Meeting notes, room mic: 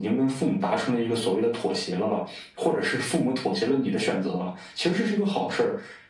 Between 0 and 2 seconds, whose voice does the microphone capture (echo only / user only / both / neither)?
echo only